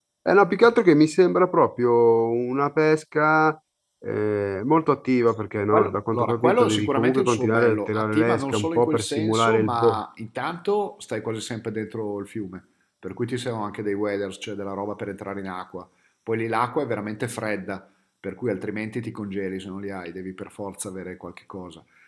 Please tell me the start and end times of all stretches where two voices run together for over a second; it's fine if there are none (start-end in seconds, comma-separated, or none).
5.7-10.0